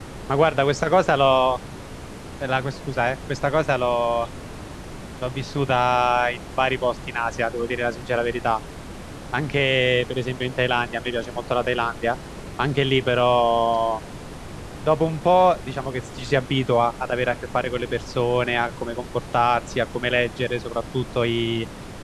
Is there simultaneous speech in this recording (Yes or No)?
No